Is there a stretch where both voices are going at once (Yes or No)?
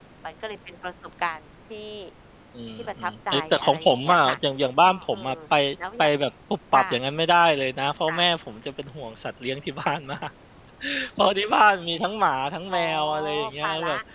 Yes